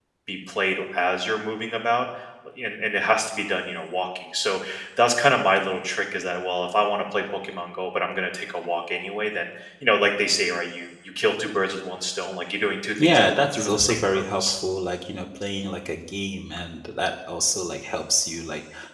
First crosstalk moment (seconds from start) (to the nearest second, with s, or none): 13 s